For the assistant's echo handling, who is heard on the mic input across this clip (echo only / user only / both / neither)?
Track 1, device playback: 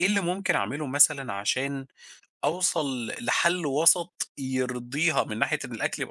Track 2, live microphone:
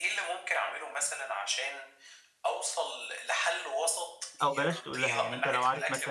both